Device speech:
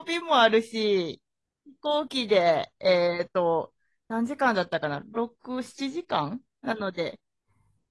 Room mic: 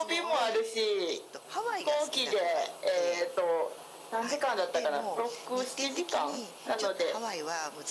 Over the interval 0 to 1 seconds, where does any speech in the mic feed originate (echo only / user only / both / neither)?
both